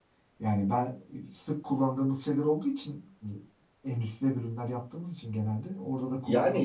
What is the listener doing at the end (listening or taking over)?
taking over